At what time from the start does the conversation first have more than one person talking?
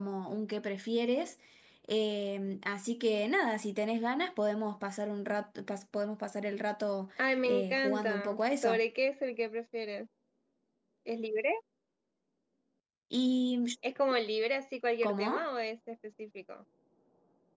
7.5 s

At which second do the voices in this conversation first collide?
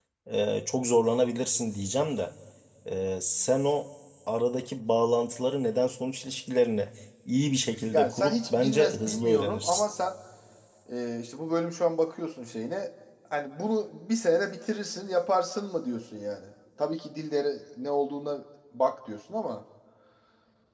7.9 s

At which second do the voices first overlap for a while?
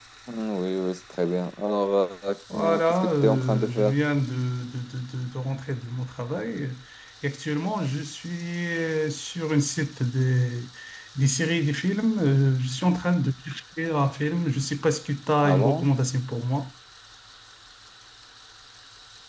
2.5 s

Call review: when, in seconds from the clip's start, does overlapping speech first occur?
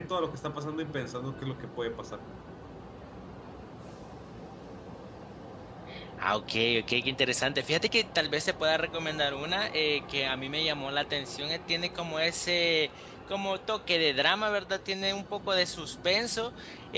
none

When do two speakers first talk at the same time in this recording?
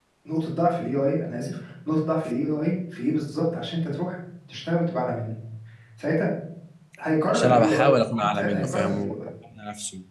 7.3 s

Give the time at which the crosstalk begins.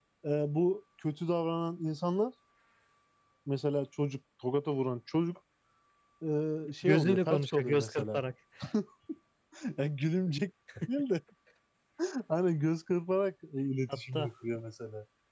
6.8 s

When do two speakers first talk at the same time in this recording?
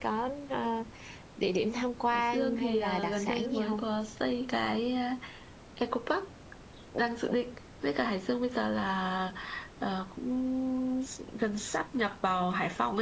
2.1 s

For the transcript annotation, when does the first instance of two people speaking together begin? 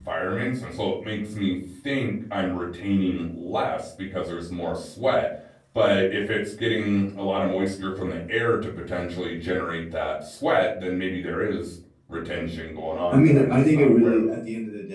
13.1 s

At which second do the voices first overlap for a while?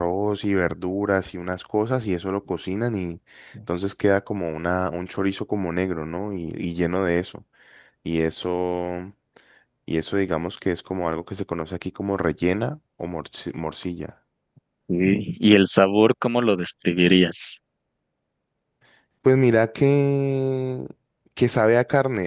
none

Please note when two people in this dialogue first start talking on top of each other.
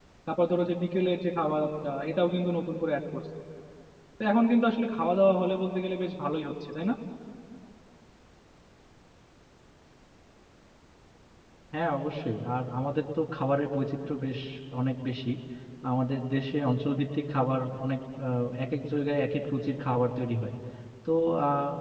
none

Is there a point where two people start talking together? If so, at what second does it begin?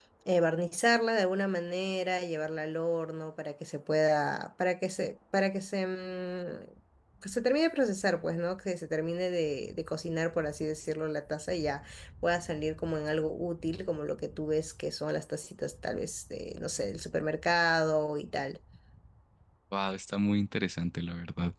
none

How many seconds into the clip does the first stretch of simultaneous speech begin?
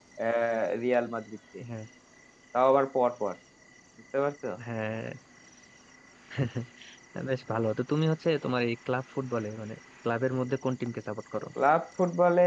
none

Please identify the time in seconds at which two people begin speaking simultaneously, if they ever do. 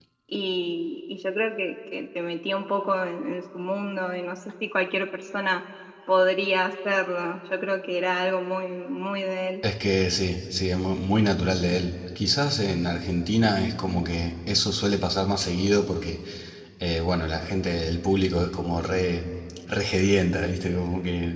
none

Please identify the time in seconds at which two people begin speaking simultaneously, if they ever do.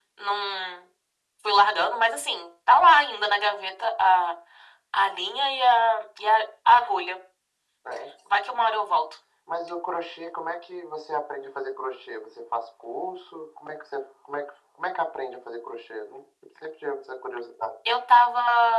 none

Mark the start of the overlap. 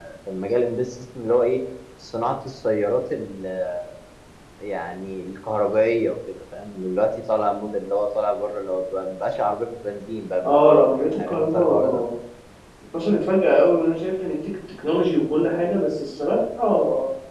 10.4 s

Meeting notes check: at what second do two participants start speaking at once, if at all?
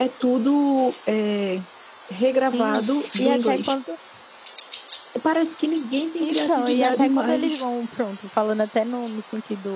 2.5 s

